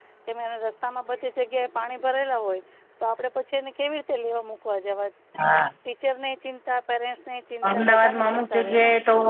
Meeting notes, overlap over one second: present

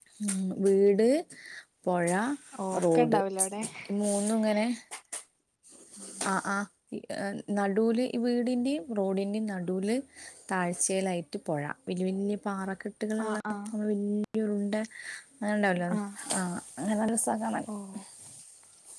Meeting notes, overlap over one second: none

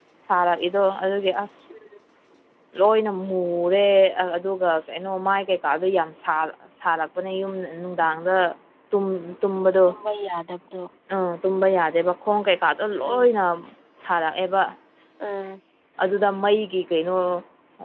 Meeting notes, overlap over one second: none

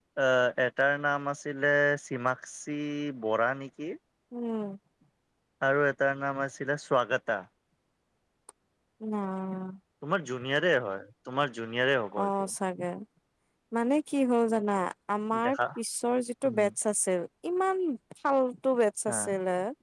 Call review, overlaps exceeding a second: none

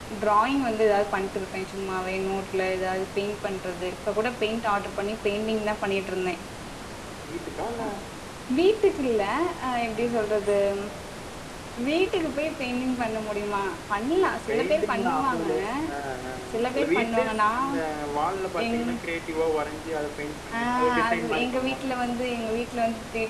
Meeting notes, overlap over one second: present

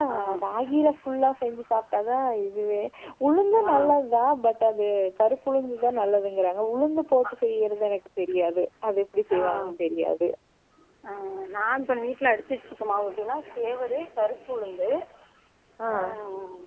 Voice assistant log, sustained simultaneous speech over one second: none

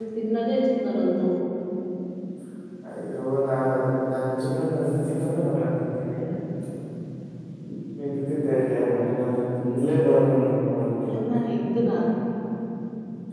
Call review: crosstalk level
none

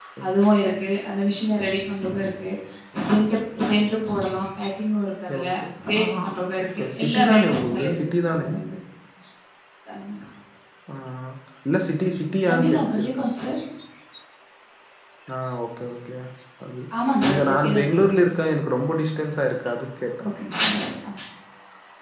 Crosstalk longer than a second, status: present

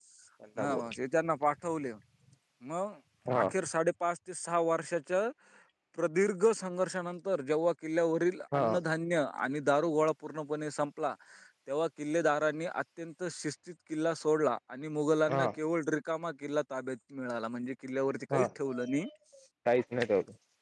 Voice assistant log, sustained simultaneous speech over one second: none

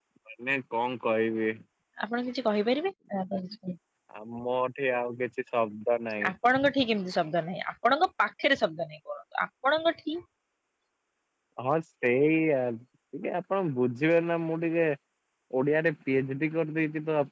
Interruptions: none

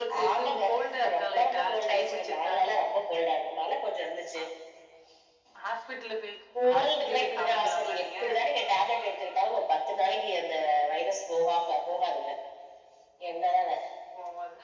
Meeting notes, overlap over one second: present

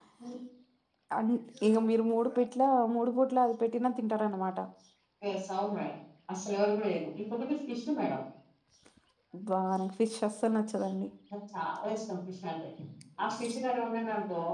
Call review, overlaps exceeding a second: none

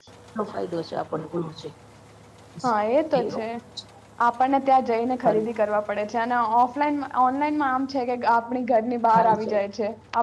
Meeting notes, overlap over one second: none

